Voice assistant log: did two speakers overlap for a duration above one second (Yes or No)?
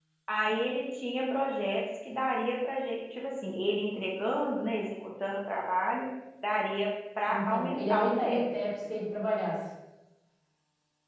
Yes